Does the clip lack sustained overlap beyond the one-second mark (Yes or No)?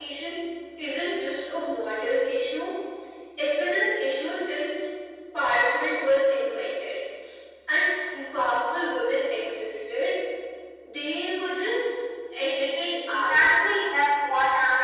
Yes